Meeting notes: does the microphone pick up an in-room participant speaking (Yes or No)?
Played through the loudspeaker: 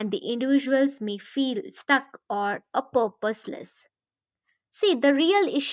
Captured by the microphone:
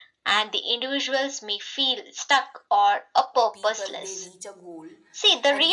Yes